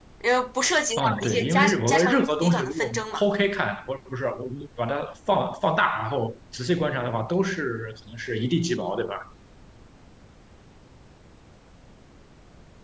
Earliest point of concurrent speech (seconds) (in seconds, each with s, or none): 1.0 s